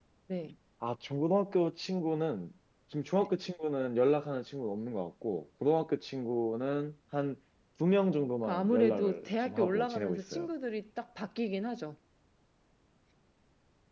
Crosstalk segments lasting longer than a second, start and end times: 8.4-10.5

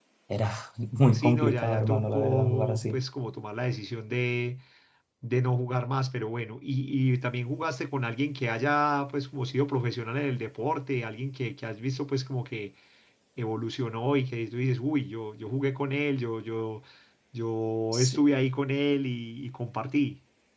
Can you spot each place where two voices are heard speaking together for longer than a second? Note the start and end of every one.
1.1-3.0

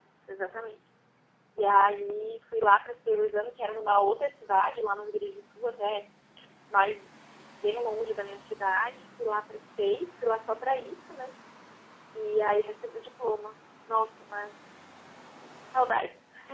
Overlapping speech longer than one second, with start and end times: none

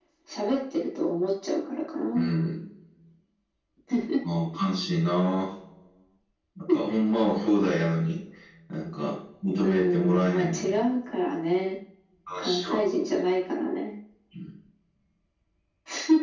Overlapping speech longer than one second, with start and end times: 9.6-10.8

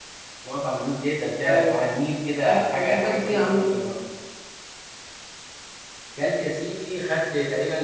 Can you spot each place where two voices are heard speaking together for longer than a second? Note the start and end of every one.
2.4-3.7

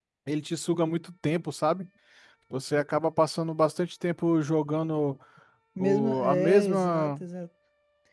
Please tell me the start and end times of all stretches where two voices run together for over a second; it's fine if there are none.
5.8-7.2

